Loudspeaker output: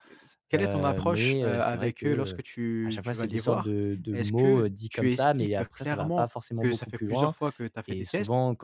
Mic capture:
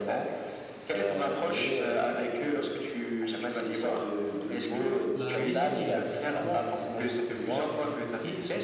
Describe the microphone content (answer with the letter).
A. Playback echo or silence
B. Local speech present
B